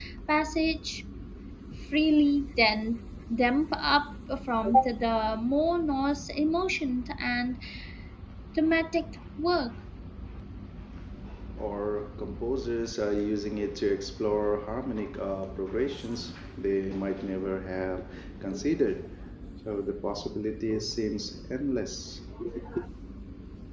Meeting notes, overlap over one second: none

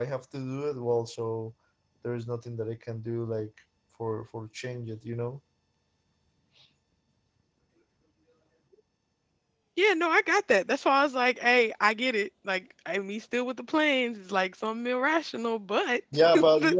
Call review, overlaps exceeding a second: none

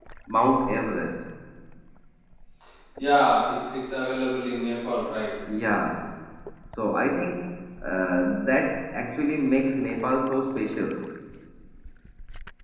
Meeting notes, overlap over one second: none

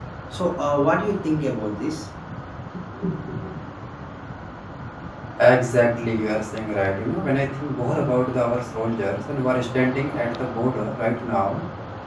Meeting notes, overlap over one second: none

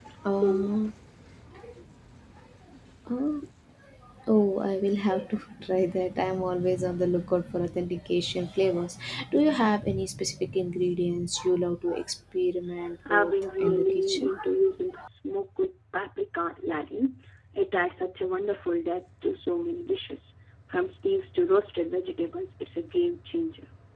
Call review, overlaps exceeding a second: present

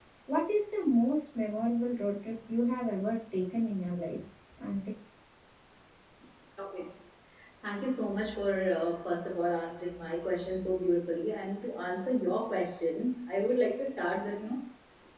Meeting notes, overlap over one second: none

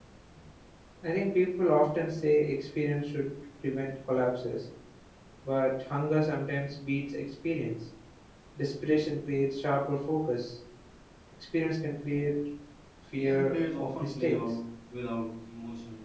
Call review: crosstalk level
present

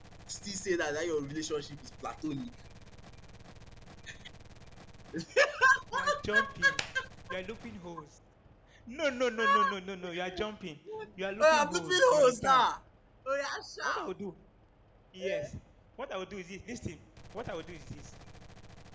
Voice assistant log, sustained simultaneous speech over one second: present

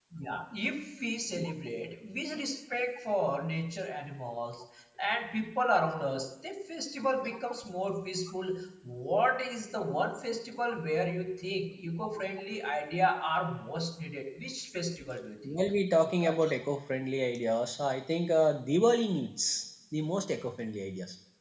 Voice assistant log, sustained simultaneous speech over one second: none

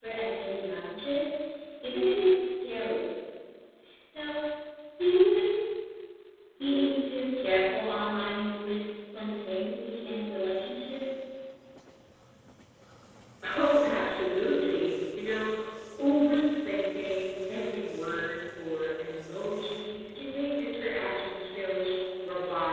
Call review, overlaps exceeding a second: none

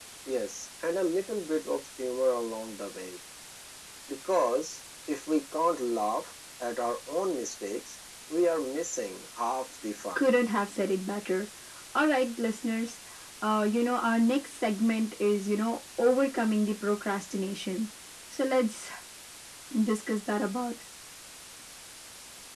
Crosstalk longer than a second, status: none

